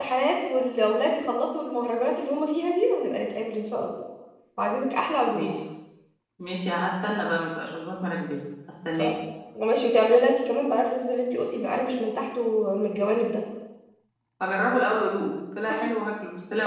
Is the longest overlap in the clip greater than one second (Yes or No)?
No